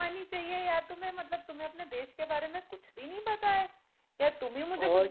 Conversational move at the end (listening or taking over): listening